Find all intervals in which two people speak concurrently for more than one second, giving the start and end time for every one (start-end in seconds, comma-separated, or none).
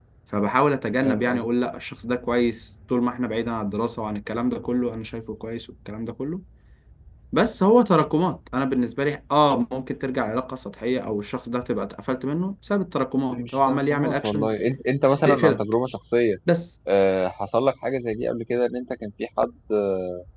13.3-14.6